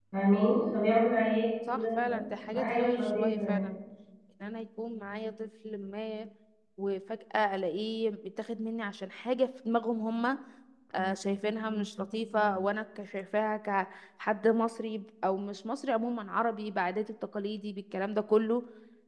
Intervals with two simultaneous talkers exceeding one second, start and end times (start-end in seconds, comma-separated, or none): 1.7-3.6